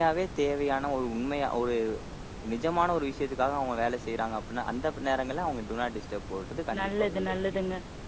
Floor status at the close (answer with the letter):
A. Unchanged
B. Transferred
B